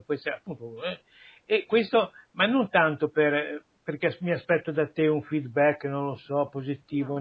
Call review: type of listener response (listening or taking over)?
listening